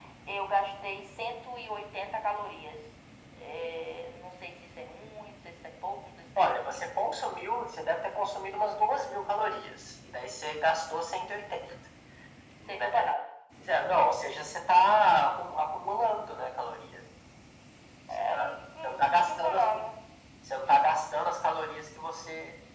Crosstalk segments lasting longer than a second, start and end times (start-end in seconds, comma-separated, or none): 18.2-19.7